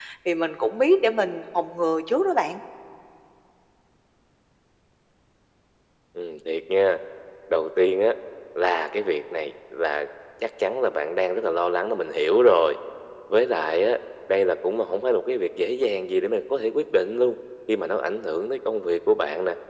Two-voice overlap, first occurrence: none

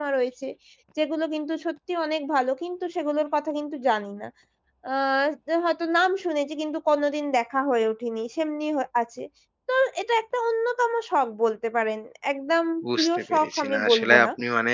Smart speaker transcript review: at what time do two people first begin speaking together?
13 s

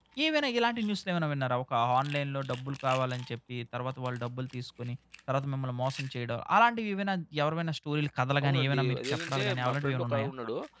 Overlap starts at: 8 s

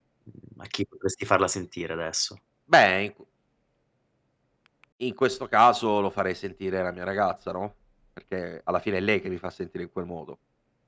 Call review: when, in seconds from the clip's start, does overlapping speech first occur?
none

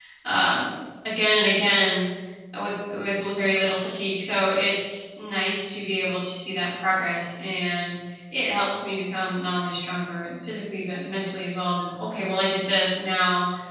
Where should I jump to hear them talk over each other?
none

